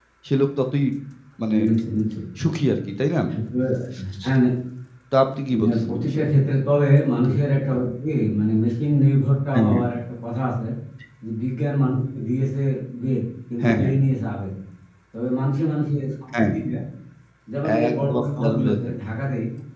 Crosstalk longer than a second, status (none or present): present